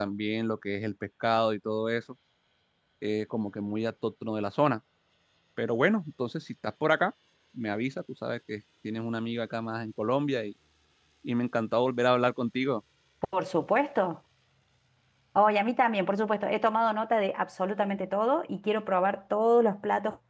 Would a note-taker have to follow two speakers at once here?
No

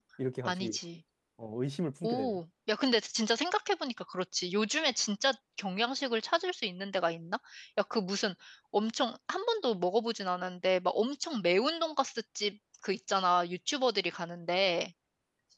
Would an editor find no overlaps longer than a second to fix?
Yes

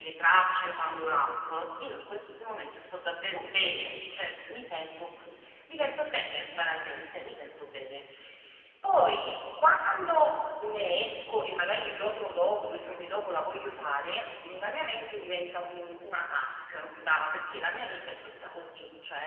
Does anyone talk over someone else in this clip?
No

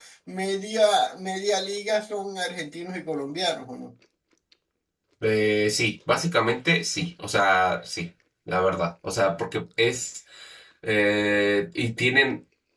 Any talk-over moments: No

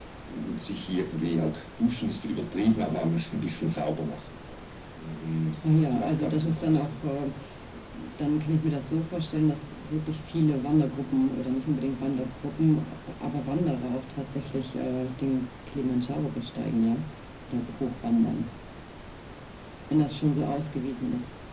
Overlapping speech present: Yes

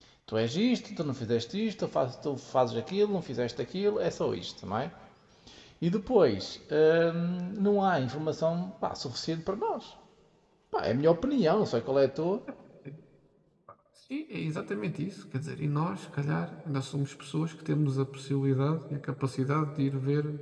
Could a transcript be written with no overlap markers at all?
Yes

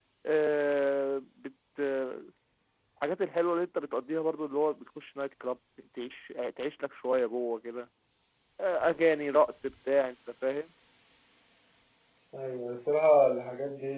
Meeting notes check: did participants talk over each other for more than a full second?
No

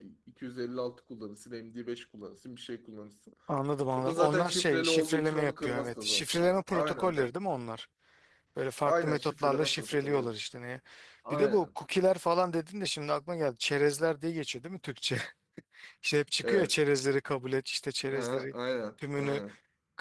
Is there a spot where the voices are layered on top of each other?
Yes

